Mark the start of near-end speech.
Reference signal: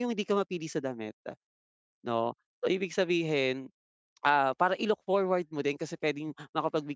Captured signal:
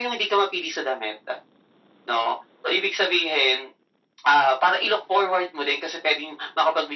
none

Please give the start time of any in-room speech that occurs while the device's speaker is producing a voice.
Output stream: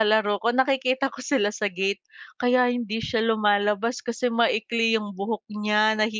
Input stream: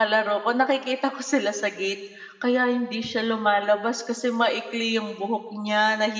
none

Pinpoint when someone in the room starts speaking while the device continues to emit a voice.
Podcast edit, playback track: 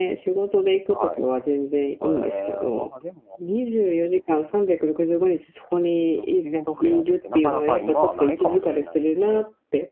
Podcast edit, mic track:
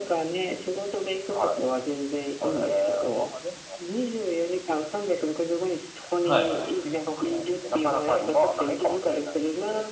6.2 s

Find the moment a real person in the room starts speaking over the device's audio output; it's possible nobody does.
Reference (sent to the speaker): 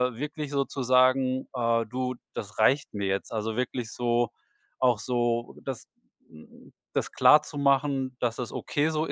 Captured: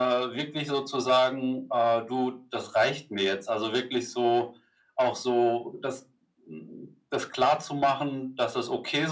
none

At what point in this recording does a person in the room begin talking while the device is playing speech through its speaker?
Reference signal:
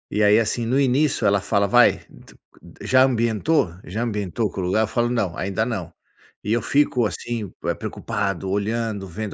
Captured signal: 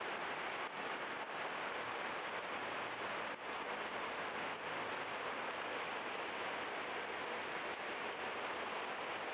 none

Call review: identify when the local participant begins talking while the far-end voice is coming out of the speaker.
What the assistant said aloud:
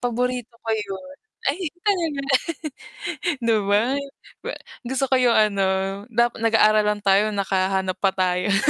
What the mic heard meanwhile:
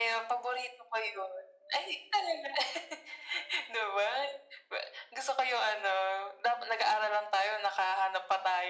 none

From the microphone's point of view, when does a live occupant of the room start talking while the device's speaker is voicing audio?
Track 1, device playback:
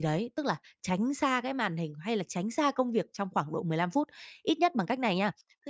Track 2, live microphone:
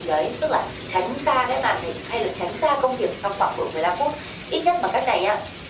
none

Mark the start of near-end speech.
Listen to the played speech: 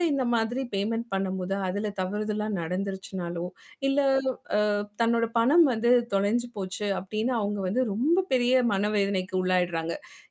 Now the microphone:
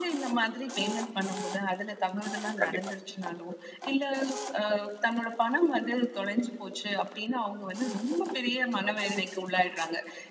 2.6 s

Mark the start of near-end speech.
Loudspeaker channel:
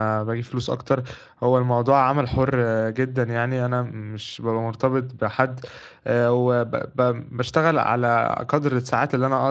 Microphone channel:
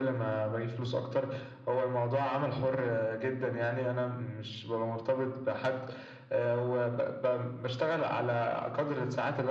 none

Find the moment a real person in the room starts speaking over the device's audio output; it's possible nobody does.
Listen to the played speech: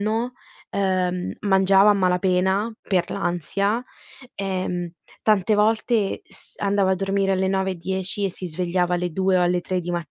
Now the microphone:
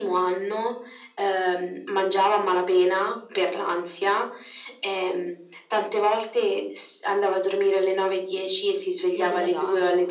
9.1 s

